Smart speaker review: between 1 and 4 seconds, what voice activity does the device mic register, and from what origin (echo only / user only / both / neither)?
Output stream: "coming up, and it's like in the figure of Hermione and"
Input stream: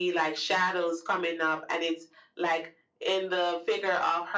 echo only